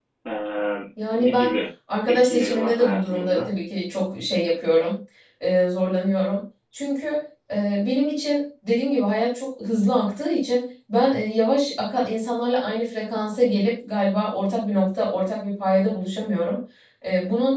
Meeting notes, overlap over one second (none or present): present